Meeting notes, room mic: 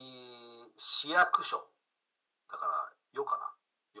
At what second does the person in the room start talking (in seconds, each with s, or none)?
none